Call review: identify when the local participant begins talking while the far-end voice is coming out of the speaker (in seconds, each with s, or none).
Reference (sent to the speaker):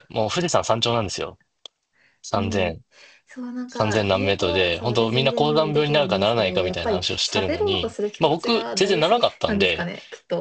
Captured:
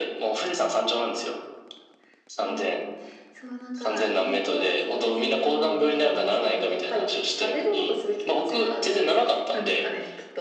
none